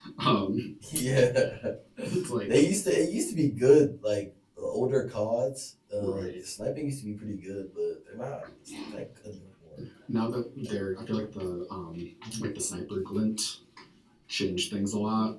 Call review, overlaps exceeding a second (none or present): none